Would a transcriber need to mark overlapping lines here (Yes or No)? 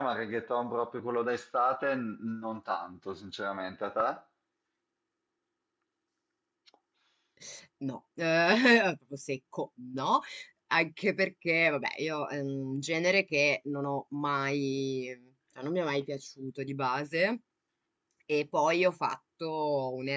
No